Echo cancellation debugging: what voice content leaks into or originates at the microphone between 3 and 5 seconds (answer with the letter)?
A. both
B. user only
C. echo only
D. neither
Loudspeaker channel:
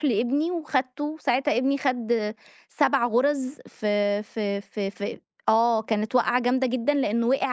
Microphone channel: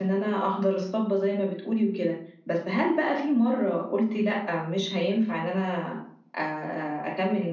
B